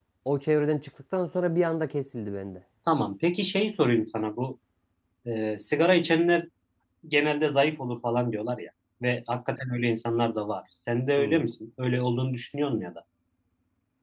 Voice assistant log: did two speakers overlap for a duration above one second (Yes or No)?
No